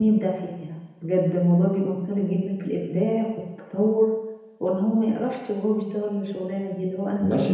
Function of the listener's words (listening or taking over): taking over